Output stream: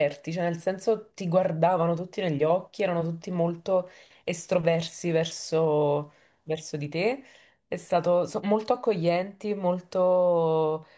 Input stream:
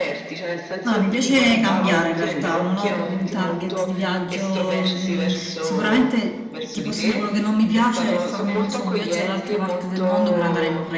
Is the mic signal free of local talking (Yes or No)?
No